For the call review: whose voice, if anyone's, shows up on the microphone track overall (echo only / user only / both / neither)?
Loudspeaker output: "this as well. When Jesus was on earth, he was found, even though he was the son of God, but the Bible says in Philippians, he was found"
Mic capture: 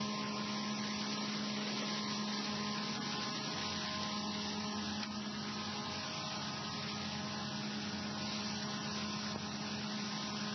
neither